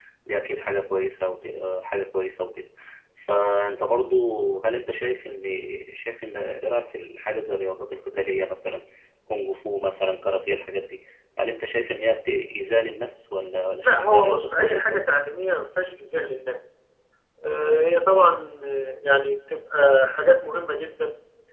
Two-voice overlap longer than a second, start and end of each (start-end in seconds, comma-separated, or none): 13.8-15.2